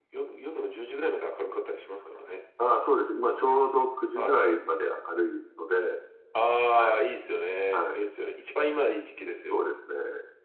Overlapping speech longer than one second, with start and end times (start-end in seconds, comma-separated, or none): none